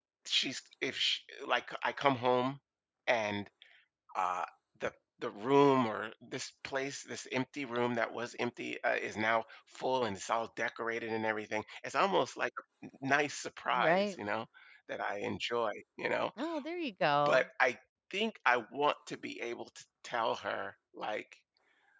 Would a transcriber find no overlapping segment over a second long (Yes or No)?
Yes